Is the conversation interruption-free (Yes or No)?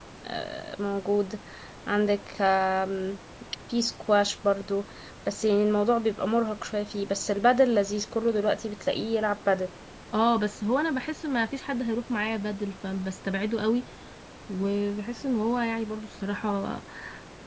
Yes